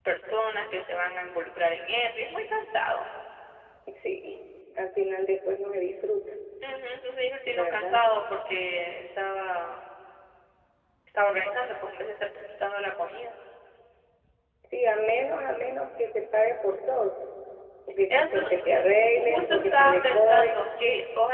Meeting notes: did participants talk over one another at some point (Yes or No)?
Yes